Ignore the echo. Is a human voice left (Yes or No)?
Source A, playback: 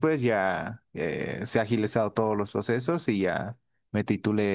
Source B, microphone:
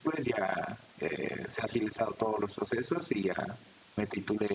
No